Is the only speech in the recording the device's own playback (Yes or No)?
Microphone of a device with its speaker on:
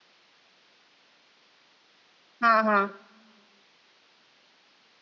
No